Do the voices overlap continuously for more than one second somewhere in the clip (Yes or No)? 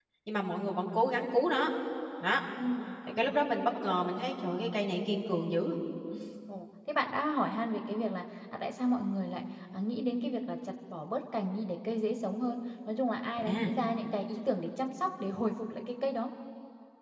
No